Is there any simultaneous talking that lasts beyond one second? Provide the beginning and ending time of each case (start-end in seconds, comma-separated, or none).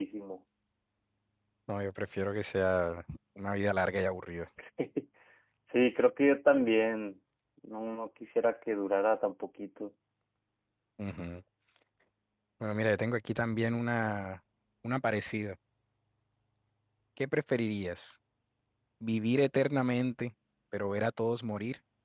none